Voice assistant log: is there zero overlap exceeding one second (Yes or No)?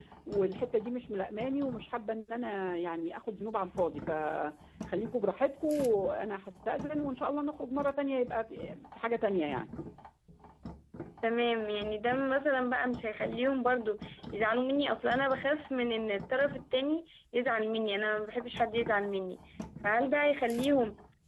Yes